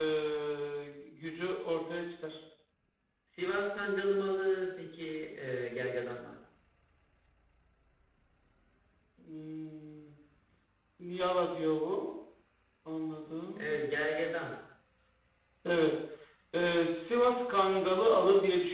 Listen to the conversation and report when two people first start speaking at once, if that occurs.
none

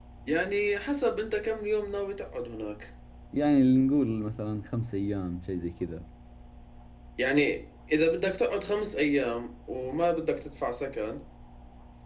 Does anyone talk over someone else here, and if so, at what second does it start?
none

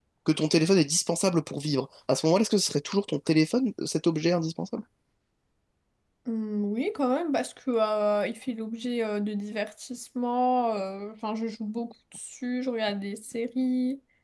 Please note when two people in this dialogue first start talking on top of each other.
none

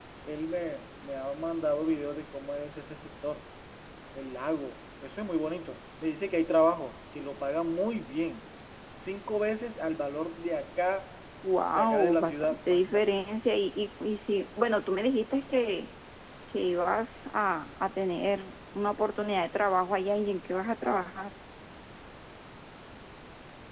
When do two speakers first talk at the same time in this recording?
11.6 s

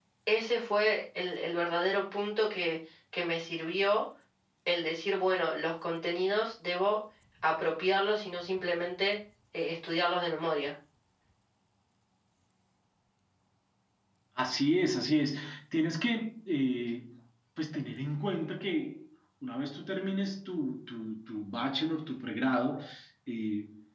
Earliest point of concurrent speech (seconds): none

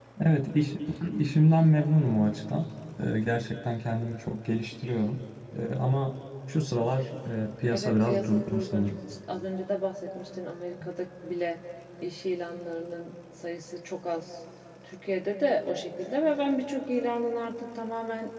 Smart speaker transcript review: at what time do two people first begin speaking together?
7.7 s

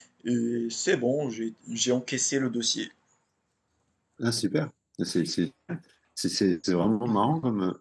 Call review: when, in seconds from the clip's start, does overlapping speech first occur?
none

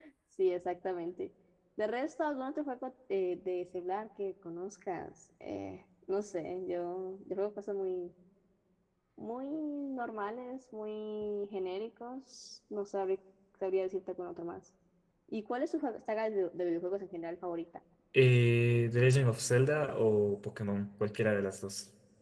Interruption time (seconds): none

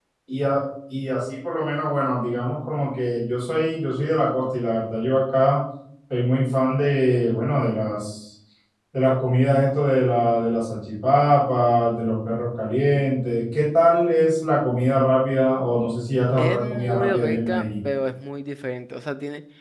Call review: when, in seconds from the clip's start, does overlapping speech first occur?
16.4 s

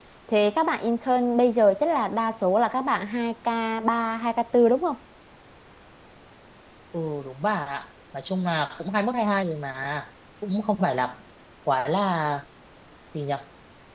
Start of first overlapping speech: none

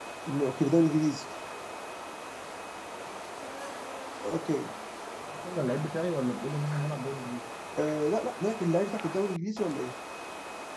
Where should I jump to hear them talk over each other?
none

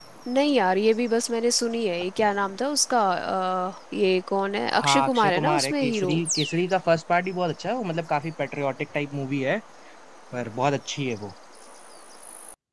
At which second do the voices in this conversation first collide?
4.8 s

